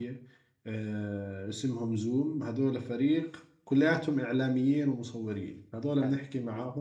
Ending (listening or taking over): listening